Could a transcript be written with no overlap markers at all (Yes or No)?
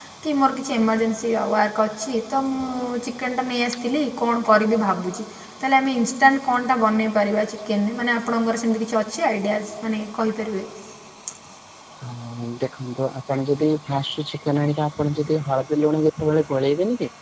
Yes